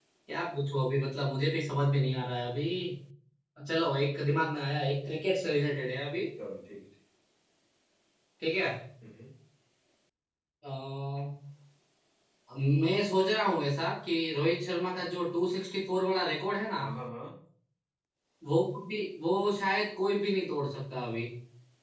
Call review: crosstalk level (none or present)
none